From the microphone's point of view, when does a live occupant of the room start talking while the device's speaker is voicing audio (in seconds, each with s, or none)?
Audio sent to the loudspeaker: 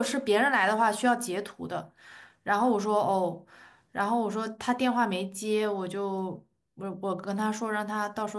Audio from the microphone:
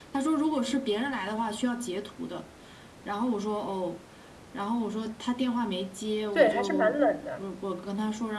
6.3 s